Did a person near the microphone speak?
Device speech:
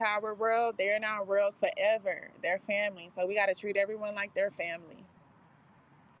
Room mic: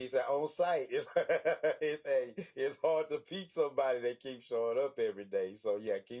Yes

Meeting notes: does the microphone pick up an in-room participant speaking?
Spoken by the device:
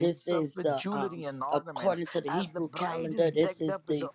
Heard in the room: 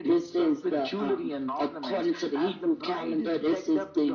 No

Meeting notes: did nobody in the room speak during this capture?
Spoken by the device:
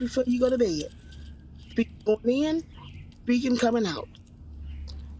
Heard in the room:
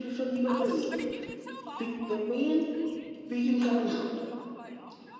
No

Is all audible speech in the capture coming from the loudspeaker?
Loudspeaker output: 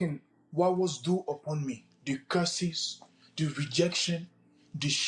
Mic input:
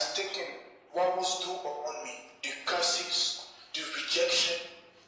Yes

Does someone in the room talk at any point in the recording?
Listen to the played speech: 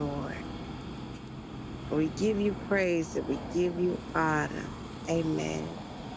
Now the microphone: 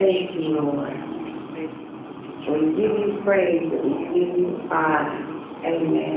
Yes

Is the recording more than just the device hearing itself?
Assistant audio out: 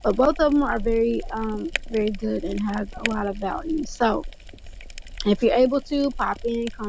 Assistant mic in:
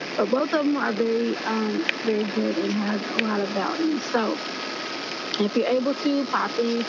No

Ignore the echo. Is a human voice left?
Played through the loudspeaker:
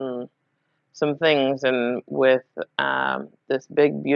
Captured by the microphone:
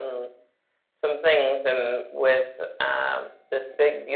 No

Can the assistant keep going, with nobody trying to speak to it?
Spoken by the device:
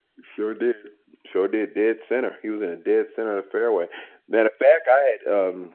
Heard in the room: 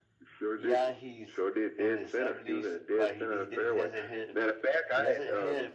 No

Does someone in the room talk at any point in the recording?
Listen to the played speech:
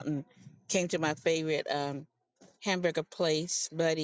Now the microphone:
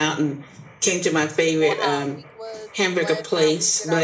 Yes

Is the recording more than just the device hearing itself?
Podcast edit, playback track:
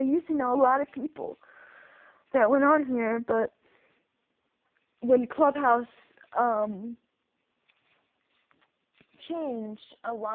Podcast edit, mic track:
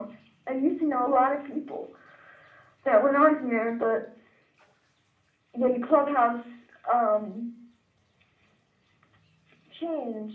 No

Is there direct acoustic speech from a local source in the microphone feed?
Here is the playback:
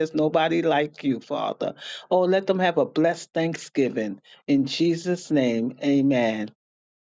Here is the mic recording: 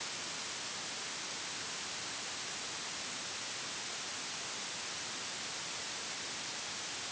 No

